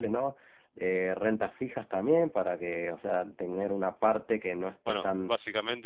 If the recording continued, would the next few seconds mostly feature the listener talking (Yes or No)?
Yes